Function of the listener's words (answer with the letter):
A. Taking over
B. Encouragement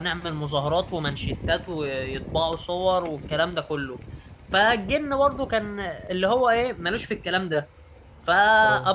B